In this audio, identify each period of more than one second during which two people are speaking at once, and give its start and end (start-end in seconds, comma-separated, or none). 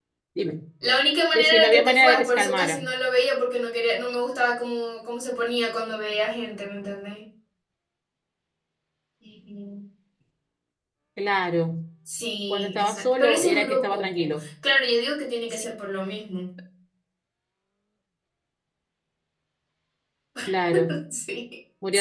1.3-2.8, 12.5-14.4